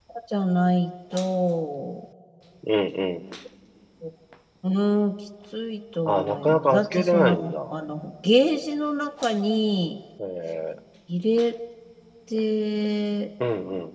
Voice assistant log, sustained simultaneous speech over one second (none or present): present